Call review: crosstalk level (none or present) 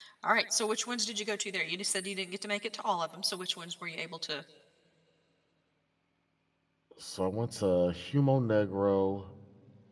none